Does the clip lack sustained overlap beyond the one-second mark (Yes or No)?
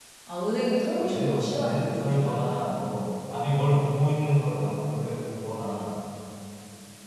No